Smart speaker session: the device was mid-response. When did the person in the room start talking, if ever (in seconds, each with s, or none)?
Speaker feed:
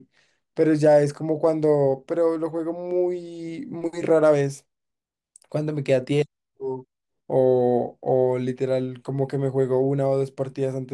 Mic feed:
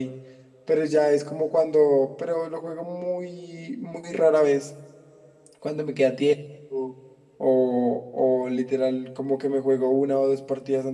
none